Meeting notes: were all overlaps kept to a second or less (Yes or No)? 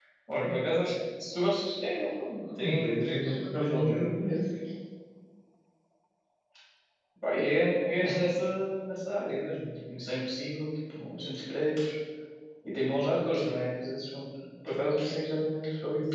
No